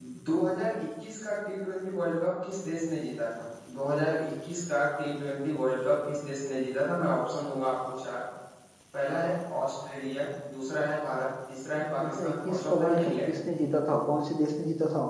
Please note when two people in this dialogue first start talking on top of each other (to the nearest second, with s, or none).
12 s